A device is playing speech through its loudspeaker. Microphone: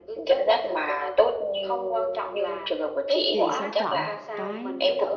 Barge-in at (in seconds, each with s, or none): 3.3 s